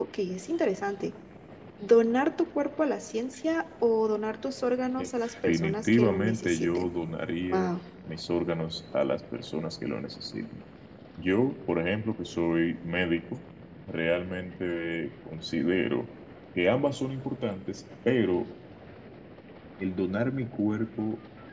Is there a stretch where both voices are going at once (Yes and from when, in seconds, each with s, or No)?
Yes, from 5.0 s